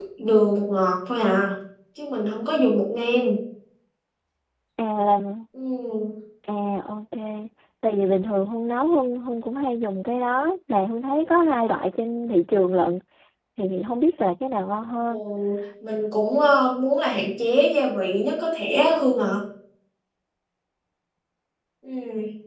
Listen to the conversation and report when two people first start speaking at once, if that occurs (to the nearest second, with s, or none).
none